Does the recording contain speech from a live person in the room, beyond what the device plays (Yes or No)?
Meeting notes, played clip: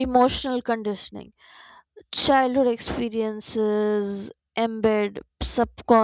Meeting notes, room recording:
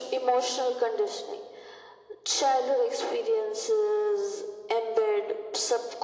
No